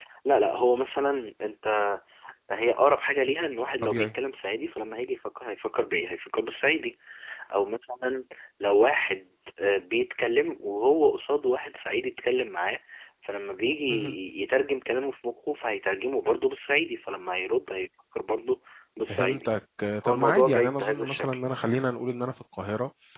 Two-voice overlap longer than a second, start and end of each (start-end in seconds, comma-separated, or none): 20.1-21.4